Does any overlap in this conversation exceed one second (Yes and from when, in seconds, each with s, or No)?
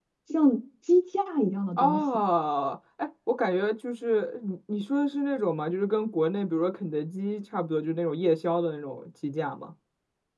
No